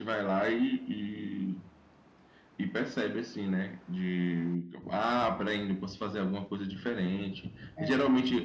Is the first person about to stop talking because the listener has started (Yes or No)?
No